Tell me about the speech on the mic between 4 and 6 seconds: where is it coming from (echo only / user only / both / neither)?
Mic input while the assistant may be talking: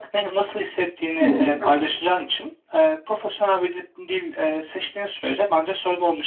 echo only